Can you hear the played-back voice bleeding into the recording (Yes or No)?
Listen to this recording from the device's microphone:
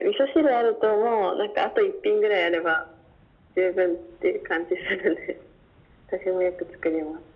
Yes